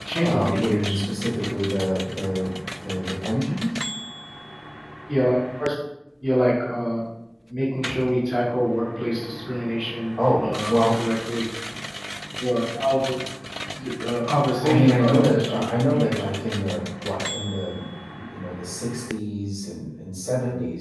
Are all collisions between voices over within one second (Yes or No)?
No